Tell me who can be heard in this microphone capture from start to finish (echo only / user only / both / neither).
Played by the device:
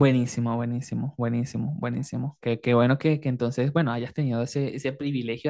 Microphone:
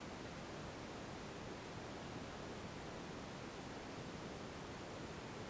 neither